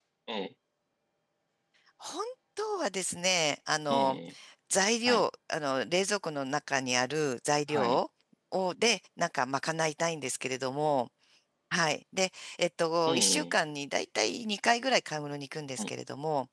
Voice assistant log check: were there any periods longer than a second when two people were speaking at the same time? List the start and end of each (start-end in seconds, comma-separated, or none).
none